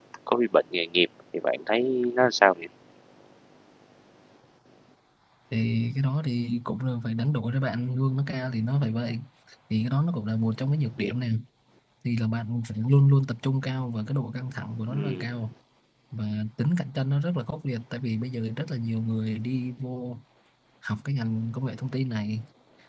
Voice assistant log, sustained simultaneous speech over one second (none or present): none